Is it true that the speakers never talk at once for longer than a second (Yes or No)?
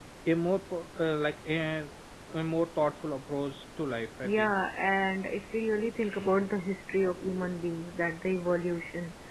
Yes